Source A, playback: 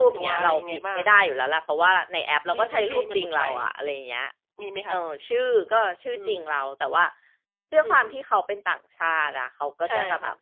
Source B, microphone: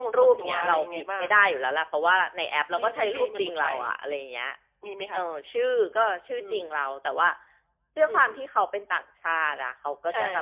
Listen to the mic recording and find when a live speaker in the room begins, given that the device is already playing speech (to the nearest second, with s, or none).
none